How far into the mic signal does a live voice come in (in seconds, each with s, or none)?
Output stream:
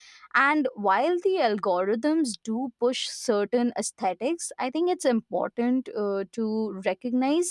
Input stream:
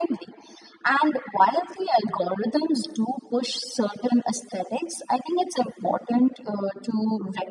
none